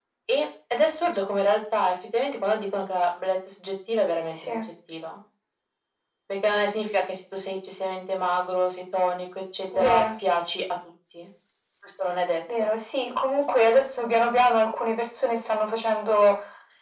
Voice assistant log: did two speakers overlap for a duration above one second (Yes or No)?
No